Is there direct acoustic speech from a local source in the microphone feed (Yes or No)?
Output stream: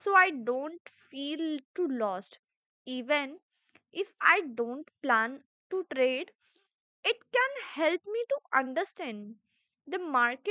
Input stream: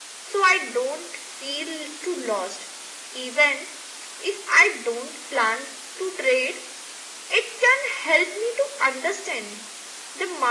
No